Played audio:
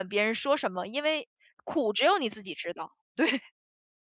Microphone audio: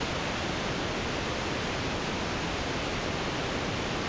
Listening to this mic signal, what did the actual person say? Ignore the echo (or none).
none